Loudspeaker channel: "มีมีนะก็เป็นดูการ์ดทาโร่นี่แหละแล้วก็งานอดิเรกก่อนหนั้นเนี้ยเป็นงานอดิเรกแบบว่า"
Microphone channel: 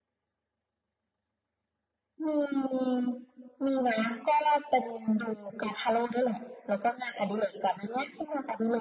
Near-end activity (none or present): none